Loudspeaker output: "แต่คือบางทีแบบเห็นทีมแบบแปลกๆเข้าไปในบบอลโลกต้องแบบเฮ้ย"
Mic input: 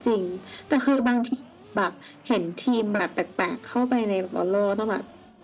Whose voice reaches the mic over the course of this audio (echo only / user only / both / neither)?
echo only